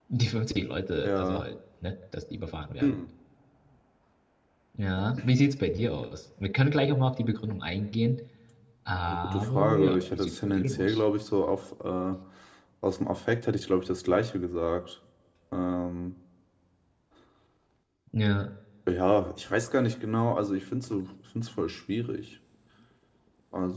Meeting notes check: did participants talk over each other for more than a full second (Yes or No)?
Yes